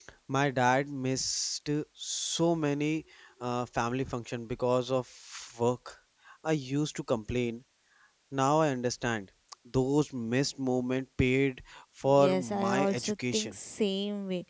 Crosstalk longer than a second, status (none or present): present